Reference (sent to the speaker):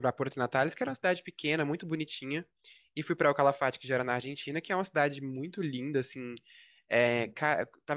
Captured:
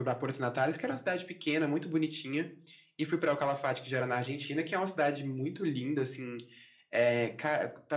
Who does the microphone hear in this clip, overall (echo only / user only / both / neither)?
echo only